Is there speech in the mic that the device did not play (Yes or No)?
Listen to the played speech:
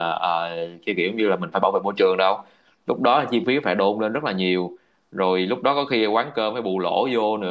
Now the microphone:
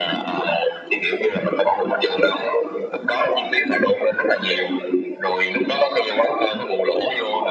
No